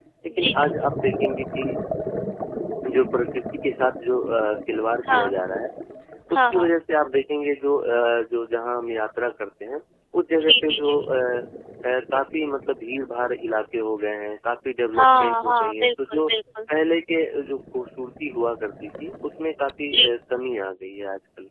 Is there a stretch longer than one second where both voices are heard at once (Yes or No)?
Yes